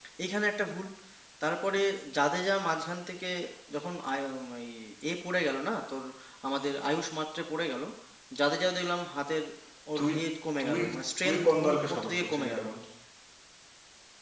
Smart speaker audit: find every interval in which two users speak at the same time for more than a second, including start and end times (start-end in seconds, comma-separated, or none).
11.2-12.6